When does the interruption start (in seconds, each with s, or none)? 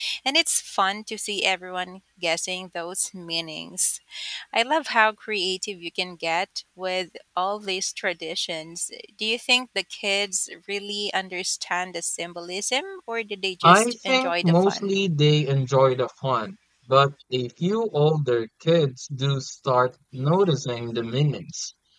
13.6 s